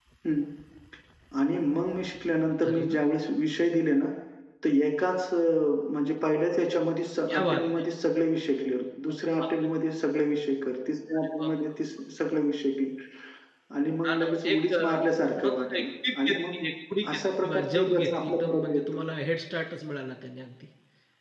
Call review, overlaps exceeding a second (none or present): present